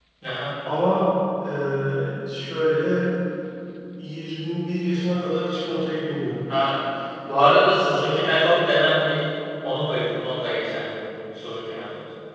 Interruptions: none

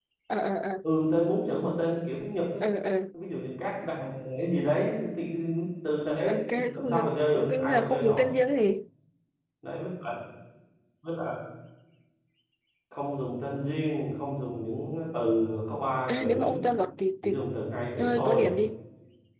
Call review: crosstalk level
present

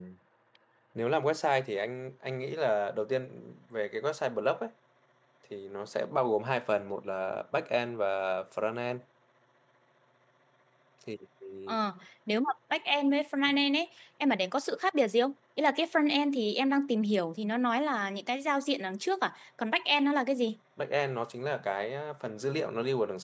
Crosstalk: none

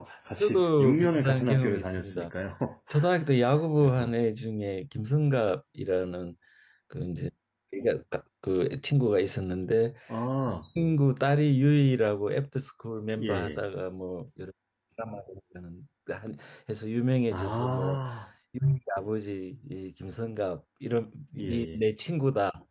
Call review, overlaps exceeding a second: present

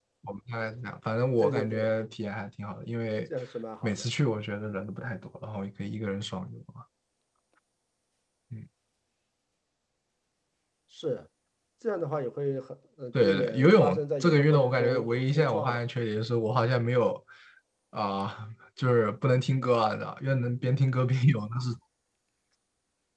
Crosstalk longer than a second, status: present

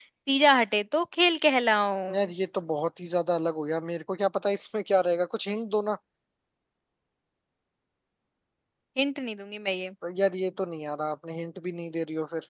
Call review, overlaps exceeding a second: none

